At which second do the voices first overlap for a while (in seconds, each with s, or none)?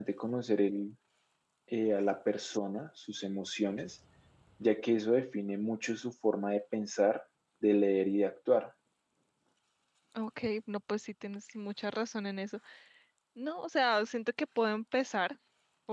none